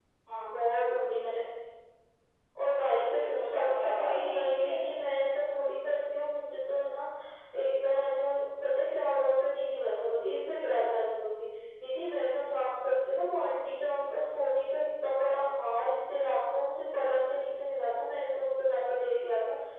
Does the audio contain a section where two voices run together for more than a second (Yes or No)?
Yes